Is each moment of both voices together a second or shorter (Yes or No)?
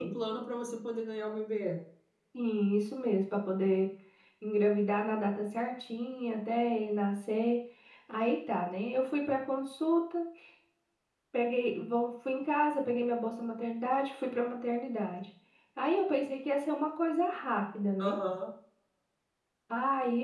Yes